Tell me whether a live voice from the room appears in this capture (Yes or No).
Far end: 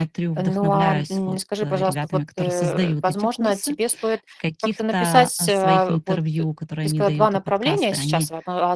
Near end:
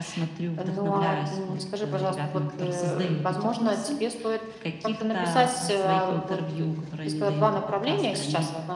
No